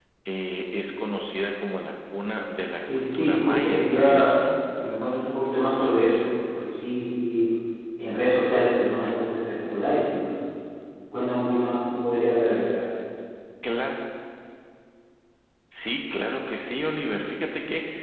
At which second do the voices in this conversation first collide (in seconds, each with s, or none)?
2.8 s